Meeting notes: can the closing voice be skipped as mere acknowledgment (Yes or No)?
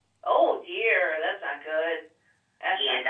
No